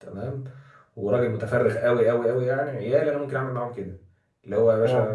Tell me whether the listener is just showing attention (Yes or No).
Yes